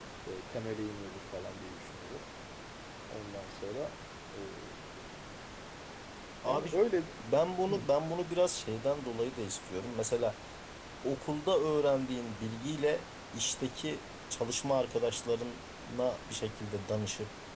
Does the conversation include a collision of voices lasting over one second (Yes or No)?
No